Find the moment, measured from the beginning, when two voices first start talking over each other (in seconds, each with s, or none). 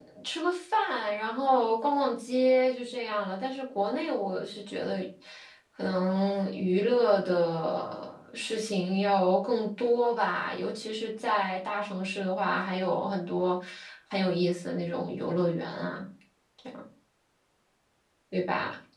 none